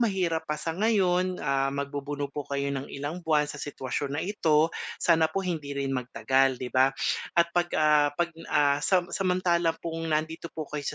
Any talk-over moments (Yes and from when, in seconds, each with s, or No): No